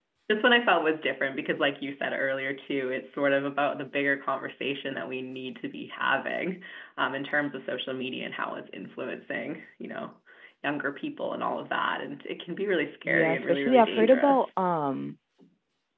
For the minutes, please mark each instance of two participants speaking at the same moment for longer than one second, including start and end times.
13.1-14.5

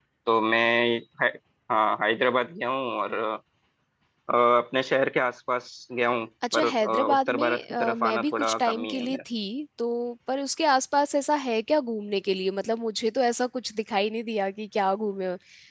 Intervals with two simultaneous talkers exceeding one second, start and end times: 6.5-9.2

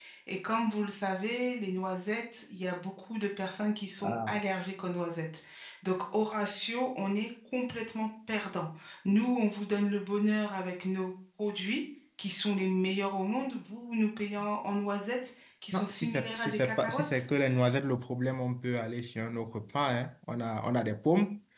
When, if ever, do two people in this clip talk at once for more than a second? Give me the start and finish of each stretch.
15.7-17.2

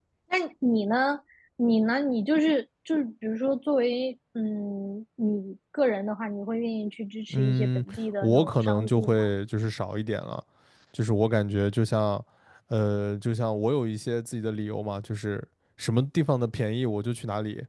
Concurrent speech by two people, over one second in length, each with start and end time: 7.3-9.3

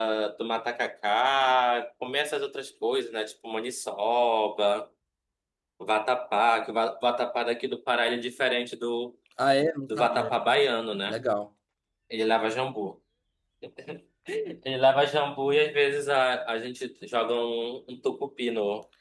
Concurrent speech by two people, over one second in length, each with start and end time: none

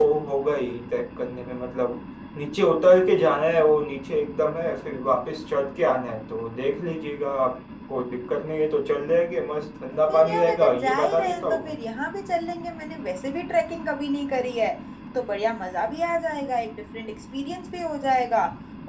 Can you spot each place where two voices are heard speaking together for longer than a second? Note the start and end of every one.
10.1-11.8

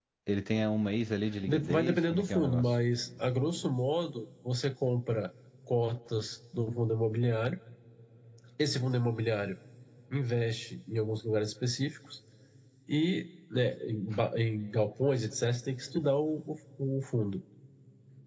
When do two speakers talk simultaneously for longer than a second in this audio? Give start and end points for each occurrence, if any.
1.5-2.8

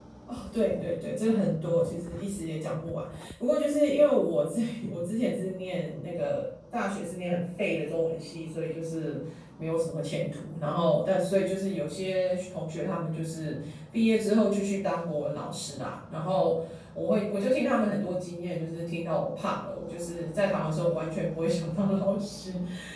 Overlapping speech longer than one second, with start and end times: none

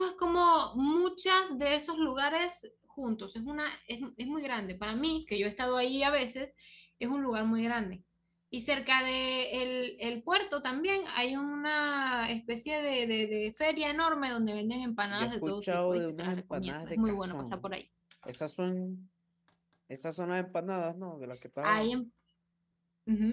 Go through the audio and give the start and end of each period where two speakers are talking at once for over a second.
15.1-17.7

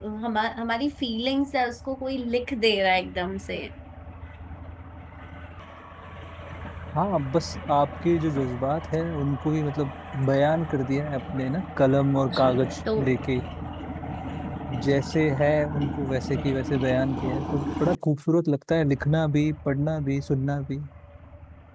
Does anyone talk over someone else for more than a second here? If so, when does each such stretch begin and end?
none

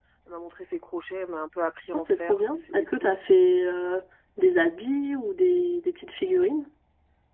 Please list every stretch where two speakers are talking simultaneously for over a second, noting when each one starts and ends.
1.9-3.2

